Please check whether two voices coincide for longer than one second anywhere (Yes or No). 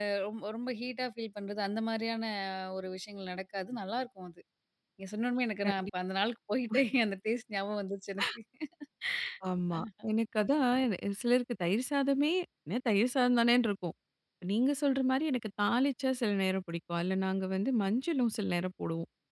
No